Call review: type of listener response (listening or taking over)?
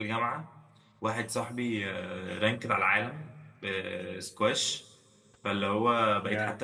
listening